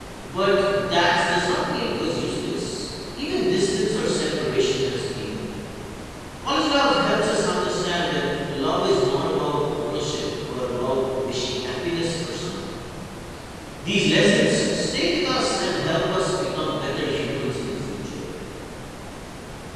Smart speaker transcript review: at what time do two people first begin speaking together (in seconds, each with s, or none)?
none